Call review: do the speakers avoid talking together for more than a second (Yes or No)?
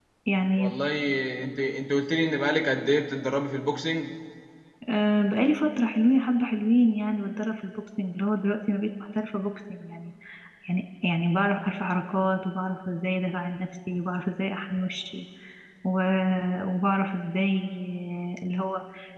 Yes